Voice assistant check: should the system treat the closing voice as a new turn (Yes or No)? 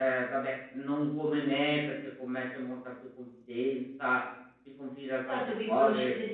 Yes